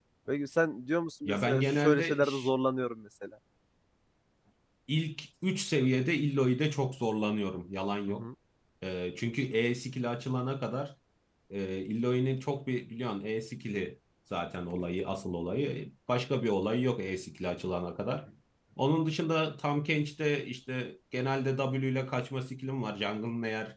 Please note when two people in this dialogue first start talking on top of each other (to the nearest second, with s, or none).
1 s